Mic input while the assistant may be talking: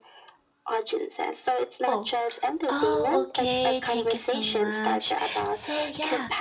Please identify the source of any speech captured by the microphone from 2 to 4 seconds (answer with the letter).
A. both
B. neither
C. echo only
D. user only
A